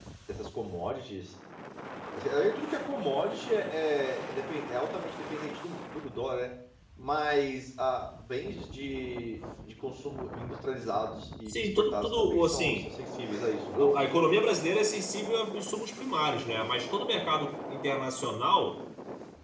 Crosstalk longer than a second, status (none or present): present